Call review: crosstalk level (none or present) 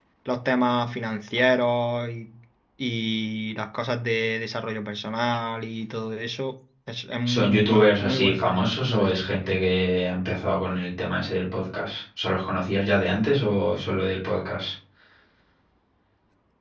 present